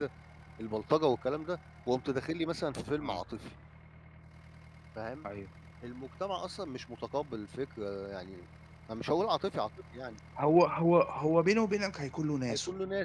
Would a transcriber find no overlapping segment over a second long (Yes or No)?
Yes